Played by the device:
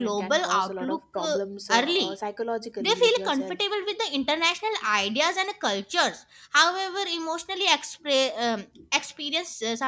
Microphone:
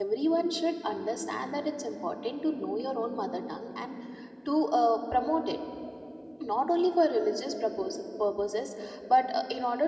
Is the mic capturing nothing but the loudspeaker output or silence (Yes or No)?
No